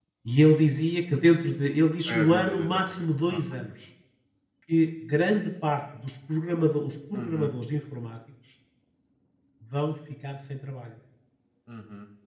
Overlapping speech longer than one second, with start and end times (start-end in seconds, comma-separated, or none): 2.1-3.4